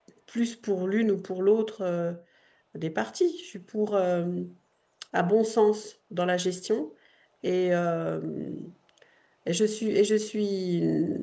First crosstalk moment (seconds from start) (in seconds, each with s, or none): none